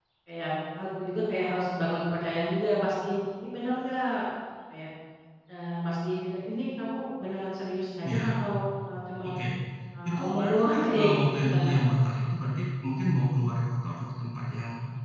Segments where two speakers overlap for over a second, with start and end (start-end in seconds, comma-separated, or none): 10.1-11.7